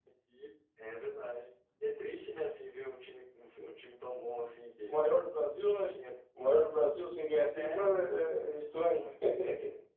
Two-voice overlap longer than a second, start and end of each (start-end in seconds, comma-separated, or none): none